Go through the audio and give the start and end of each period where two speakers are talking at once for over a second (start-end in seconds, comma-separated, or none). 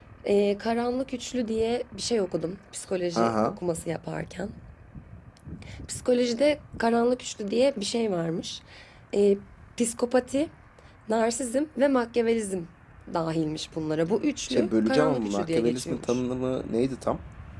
14.5-16.2